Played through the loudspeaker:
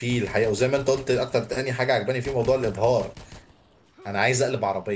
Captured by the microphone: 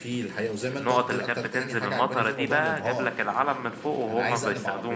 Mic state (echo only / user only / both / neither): both